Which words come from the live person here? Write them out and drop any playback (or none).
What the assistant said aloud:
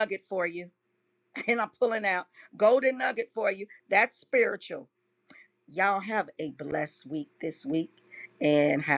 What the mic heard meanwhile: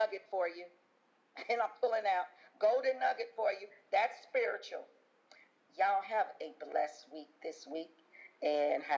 none